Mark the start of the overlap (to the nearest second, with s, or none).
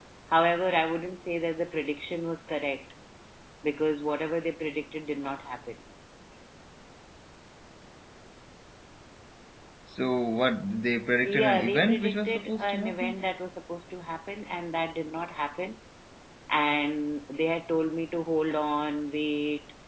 11 s